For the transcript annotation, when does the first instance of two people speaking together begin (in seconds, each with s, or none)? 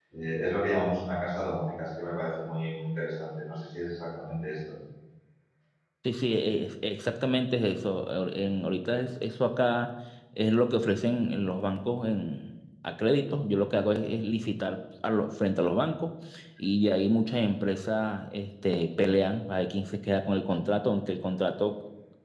none